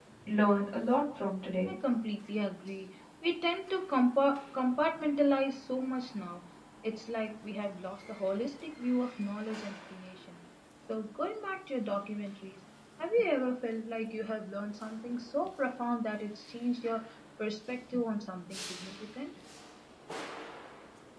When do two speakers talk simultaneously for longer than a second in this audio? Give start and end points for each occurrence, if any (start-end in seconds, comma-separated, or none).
none